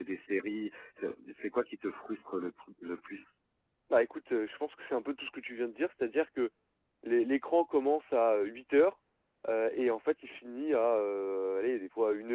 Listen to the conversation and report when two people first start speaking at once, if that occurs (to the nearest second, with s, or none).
none